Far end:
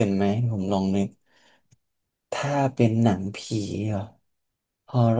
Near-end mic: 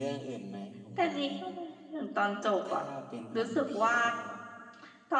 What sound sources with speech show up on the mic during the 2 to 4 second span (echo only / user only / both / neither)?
both